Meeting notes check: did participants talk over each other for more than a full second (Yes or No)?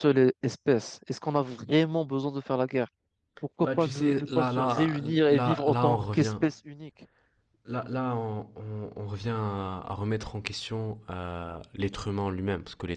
Yes